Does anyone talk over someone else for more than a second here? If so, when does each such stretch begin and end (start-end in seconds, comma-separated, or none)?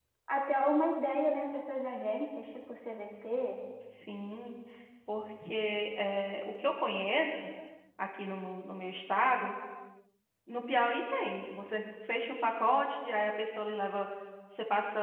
none